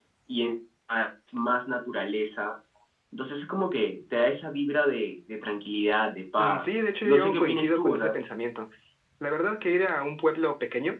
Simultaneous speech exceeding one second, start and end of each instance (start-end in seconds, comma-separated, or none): 6.4-8.2